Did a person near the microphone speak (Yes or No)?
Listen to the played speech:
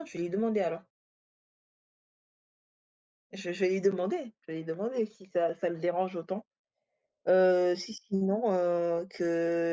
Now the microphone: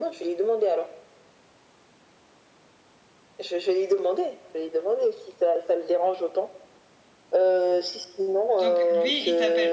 Yes